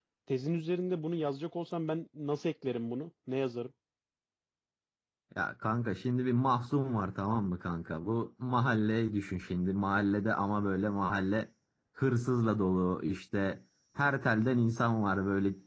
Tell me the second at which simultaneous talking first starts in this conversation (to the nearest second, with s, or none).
none